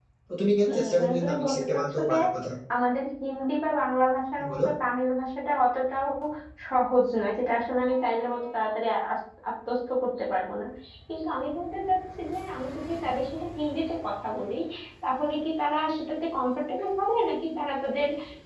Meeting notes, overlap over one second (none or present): present